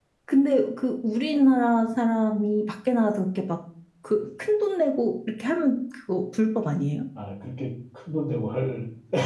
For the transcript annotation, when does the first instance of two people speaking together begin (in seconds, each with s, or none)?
none